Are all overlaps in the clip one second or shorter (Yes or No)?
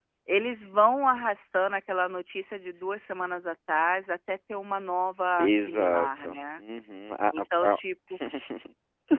No